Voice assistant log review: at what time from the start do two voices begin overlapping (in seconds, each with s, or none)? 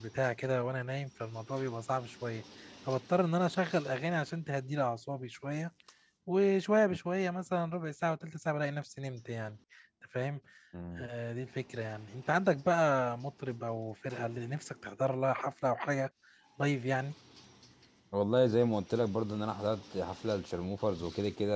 none